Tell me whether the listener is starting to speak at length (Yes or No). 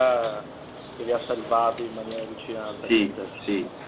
Yes